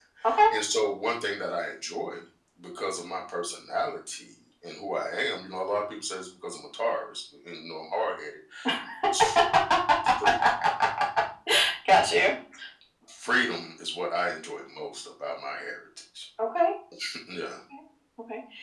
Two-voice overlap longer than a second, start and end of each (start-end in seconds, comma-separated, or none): none